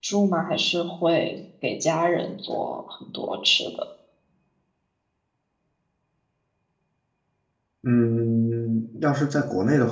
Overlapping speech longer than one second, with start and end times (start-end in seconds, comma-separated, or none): none